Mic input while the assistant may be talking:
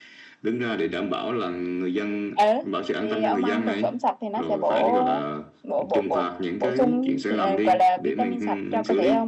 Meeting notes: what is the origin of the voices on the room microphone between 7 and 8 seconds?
both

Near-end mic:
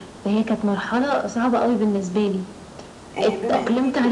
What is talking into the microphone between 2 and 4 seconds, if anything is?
both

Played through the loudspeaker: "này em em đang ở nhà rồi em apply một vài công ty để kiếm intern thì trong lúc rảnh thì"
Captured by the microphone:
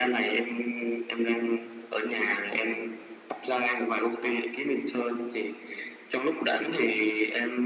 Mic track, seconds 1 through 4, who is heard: echo only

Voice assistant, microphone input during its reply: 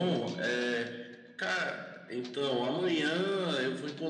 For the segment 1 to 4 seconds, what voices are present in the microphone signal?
echo only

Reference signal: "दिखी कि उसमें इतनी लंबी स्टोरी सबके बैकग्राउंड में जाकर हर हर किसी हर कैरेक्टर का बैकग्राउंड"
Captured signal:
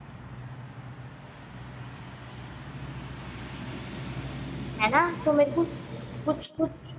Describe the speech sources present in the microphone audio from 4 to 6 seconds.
user only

